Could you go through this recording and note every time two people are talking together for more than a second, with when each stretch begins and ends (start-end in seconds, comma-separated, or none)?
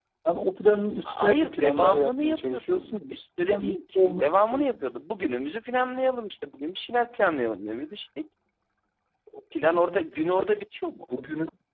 1.1-3.1, 3.5-4.9